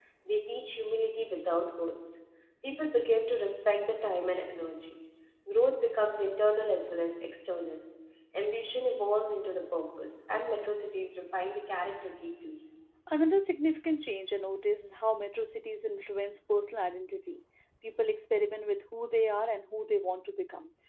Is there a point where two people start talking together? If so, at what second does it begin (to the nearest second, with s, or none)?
none